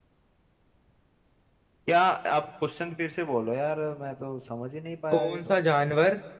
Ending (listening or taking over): taking over